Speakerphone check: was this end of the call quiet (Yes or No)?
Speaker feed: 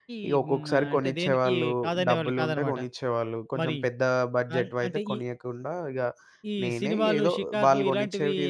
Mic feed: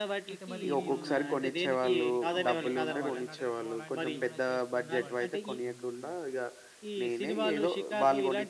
No